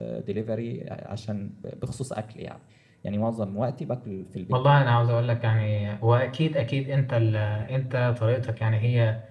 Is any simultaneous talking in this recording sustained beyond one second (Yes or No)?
No